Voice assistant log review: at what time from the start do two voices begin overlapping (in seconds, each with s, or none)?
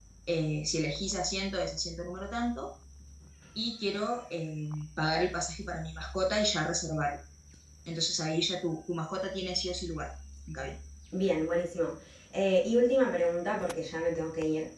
none